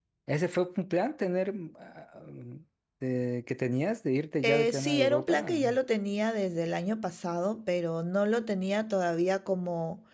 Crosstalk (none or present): present